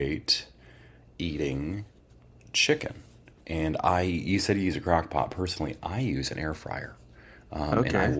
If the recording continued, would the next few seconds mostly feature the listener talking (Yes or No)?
No